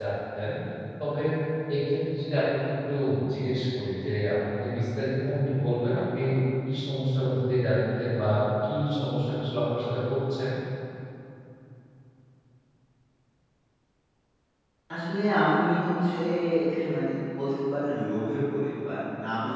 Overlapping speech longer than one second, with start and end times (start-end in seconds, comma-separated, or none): none